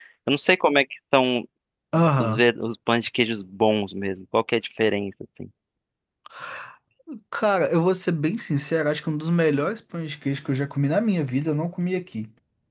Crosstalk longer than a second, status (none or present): none